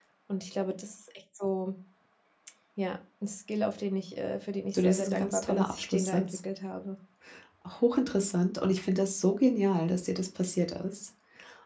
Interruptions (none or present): present